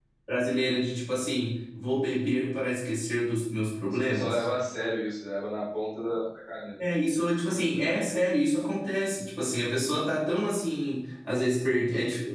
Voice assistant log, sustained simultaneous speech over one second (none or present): none